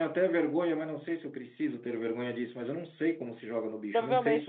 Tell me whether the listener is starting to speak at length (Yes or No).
Yes